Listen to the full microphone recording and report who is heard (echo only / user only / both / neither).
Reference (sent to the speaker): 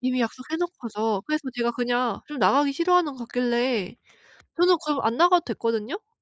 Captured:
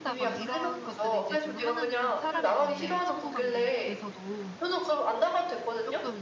both